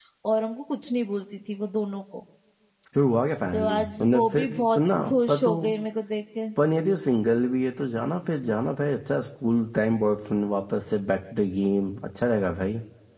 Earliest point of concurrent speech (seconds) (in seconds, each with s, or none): 3.5 s